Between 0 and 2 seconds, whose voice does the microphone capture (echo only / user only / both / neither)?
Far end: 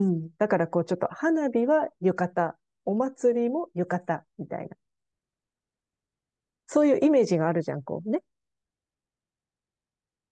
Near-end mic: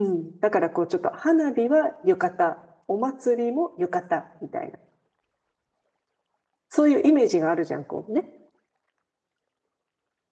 echo only